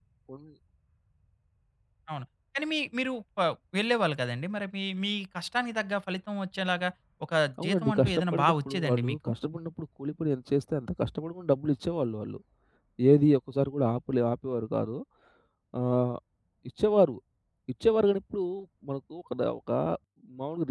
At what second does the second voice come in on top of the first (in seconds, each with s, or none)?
7.6 s